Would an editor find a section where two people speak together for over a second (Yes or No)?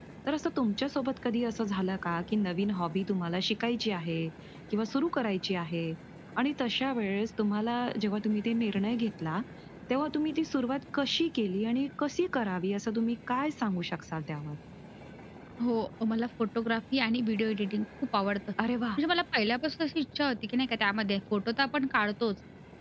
No